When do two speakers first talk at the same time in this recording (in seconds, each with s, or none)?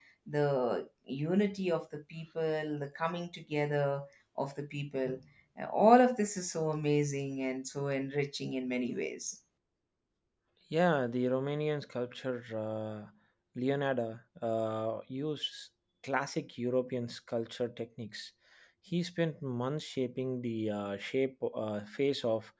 none